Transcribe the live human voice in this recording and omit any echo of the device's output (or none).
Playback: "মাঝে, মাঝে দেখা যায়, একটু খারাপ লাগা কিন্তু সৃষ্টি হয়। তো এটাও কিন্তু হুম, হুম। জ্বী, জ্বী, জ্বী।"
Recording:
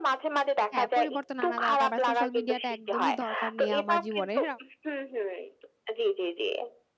হ্যাঁ, পরিবর্তন আনা দরকার। বা সোশ্যাল মিডিয়া টা একদমই দরকার নেই, আমার জীবনের।